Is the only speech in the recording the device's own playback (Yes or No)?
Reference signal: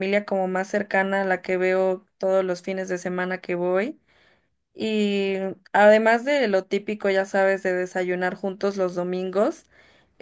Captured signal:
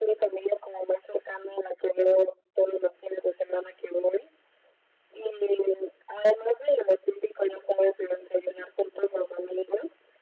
Yes